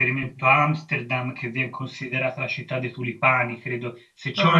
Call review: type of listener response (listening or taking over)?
listening